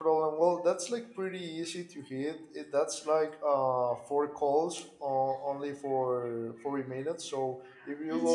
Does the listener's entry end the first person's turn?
No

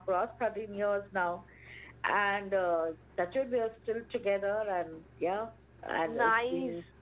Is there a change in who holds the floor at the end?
Yes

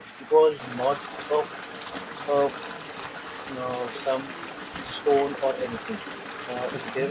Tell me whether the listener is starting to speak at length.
No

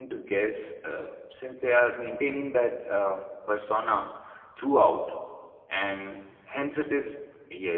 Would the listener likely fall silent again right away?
Yes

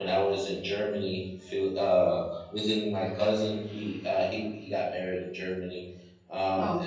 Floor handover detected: No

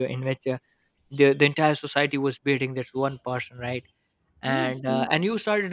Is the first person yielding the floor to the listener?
No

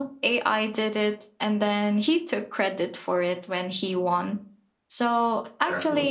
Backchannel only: Yes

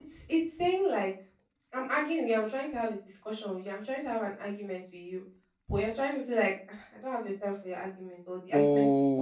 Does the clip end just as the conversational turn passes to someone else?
Yes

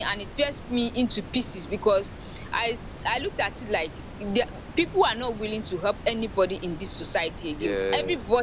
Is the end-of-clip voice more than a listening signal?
No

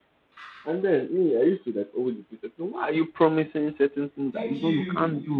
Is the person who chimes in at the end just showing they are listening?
No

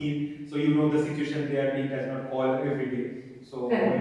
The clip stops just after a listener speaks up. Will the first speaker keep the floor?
Yes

